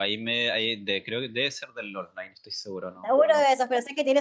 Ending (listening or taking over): taking over